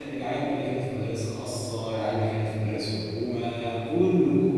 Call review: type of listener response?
listening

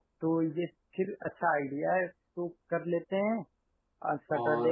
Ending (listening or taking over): taking over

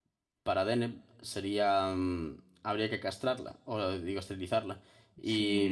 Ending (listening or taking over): listening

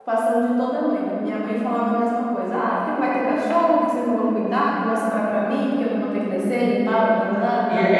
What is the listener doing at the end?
taking over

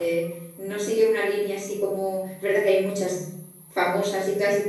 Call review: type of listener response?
listening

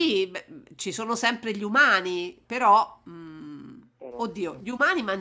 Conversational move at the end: listening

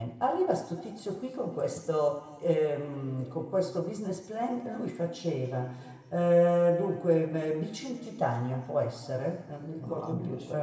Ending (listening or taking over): listening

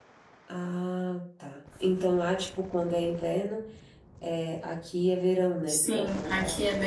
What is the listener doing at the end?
taking over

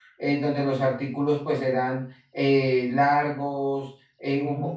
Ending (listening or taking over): listening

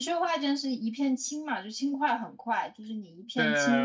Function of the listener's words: taking over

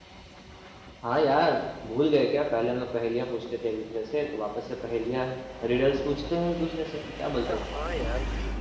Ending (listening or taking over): taking over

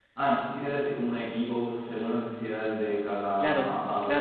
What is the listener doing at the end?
taking over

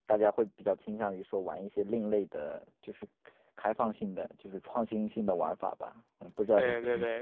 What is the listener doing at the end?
taking over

